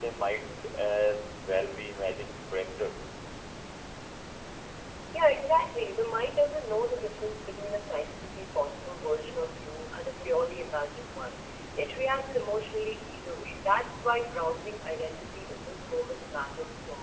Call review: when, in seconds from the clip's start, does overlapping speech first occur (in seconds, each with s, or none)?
none